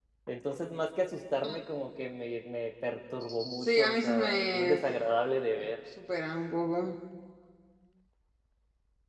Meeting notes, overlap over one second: present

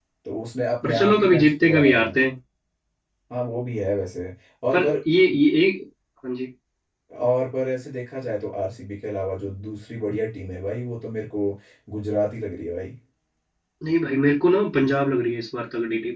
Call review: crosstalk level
present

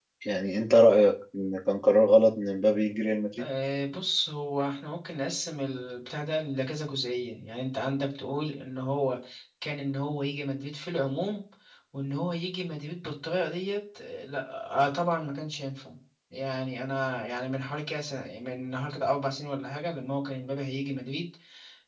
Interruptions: none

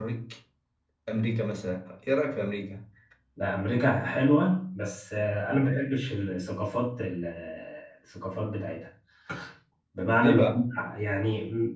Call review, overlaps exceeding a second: none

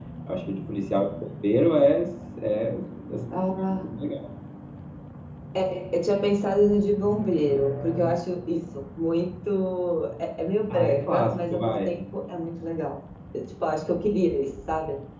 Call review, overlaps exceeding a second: present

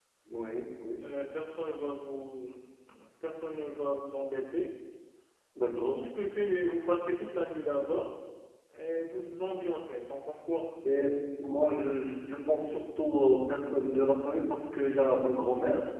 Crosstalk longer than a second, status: none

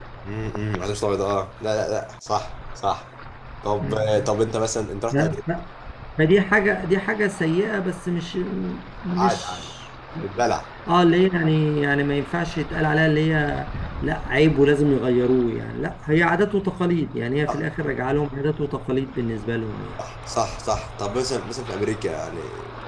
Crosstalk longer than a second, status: none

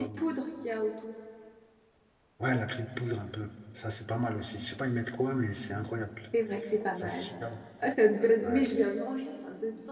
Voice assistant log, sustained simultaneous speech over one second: none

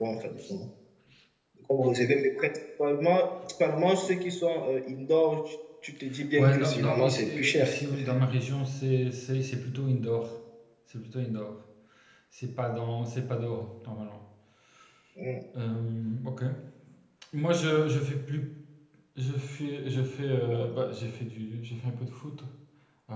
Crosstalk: present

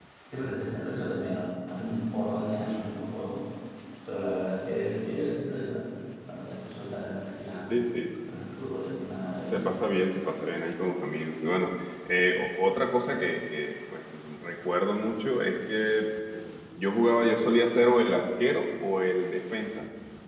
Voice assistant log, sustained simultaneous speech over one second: none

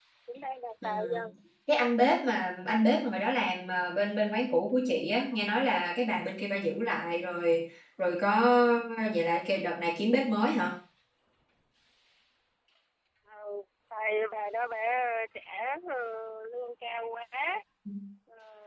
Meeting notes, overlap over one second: none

